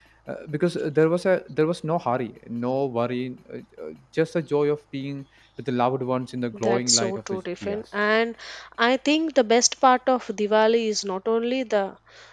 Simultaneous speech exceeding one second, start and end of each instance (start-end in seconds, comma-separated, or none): 6.5-7.8